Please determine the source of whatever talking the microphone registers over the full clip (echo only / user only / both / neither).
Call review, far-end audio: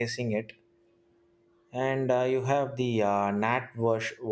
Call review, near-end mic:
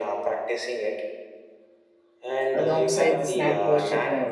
both